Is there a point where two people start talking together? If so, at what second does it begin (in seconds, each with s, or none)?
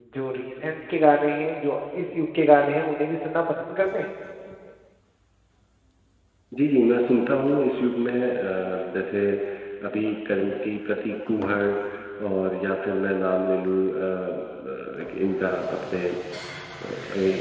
none